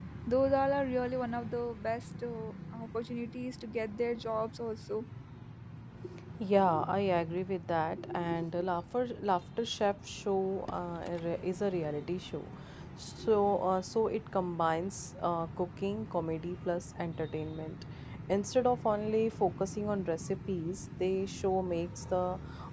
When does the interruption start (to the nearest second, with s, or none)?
none